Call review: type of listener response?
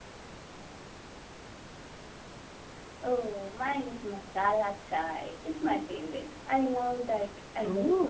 taking over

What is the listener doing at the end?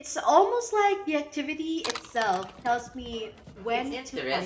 taking over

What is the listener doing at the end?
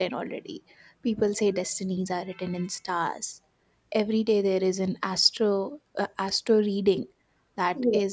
listening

